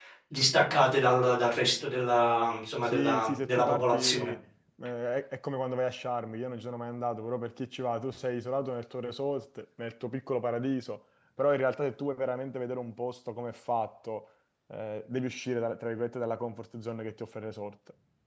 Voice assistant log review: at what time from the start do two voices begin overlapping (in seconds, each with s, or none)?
2.8 s